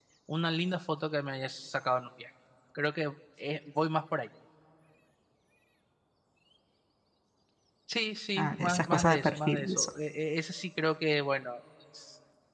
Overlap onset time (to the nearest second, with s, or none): 8 s